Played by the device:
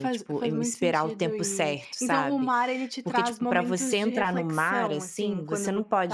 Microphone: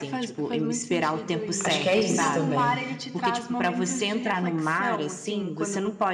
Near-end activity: present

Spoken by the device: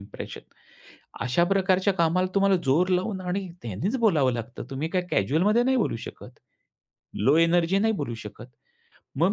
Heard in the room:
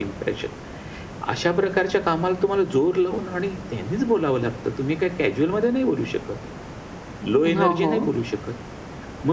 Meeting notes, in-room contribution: present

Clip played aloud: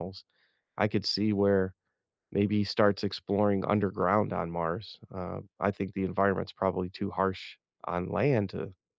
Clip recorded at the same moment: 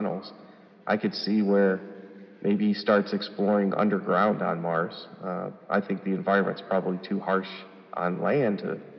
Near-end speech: none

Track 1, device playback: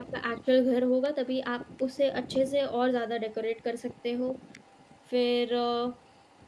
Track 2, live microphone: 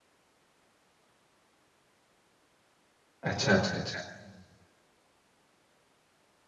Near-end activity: present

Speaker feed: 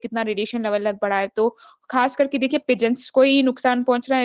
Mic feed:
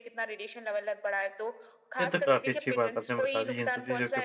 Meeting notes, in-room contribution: present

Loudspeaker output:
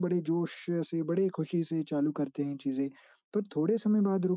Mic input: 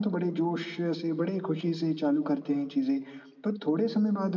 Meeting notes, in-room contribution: none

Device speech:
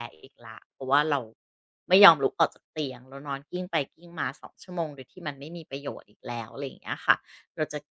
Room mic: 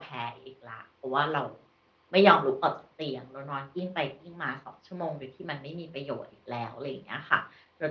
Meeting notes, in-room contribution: none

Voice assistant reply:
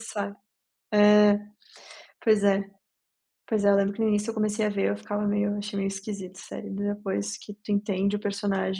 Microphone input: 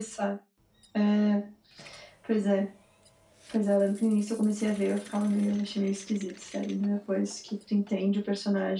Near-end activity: none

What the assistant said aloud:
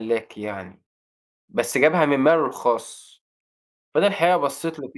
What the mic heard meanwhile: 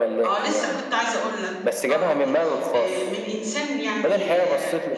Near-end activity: present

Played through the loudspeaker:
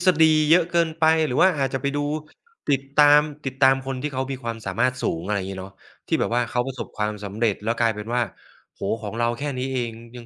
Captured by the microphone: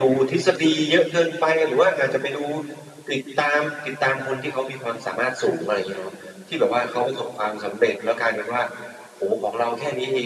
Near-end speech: none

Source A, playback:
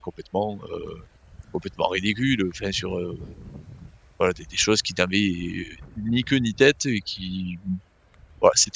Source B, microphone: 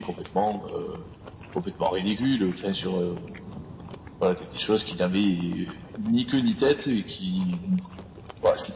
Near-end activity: none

